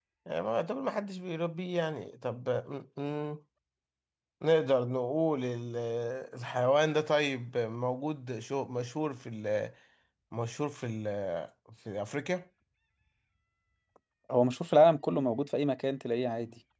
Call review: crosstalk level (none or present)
none